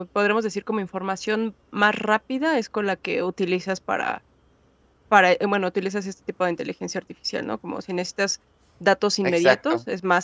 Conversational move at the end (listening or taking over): listening